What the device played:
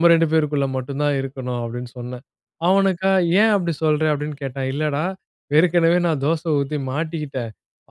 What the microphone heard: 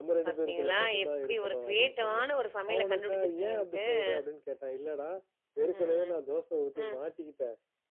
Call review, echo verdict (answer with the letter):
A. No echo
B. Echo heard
B